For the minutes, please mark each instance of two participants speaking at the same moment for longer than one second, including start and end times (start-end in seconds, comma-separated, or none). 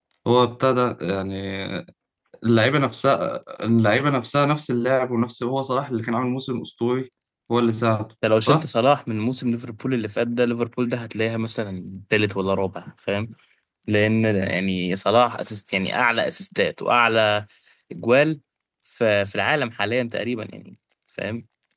none